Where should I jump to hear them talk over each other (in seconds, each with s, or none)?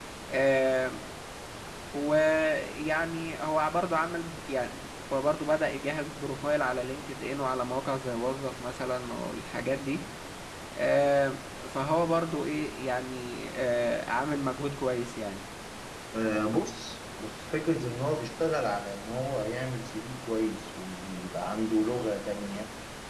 none